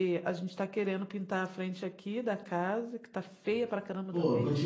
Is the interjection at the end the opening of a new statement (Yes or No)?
Yes